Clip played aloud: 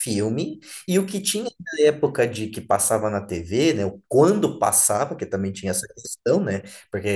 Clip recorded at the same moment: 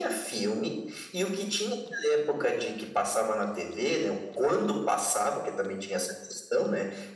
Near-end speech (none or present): none